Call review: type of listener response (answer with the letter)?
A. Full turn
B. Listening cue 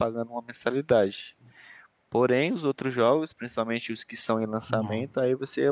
B